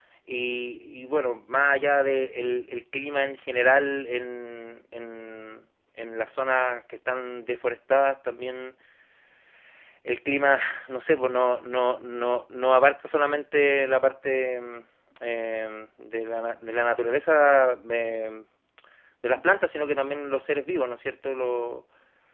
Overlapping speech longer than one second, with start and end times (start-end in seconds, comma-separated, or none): none